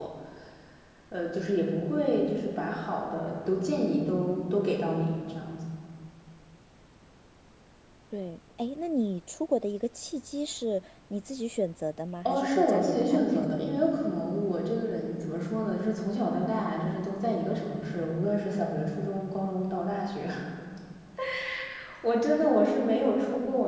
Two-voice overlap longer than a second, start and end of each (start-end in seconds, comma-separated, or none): 12.2-13.6